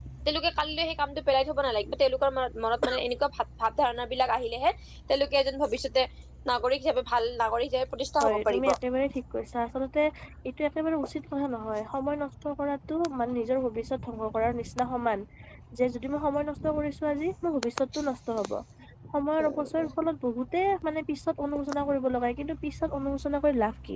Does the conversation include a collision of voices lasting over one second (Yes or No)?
No